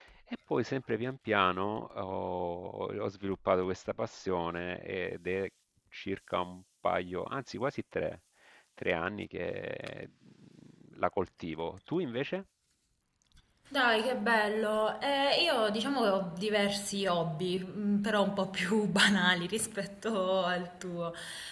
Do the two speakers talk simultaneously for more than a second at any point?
No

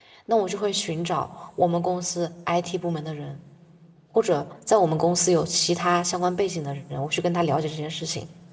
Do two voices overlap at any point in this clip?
No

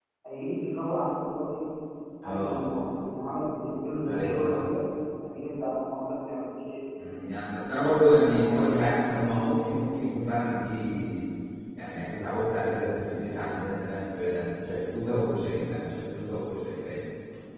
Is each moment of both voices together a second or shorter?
Yes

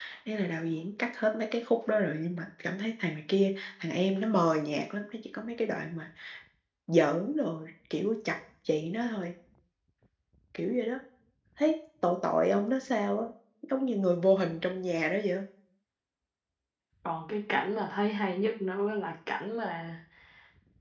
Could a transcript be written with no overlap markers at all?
Yes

